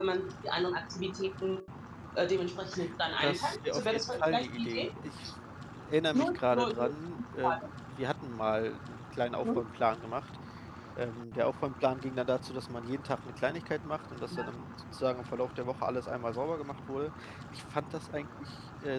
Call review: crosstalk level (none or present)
present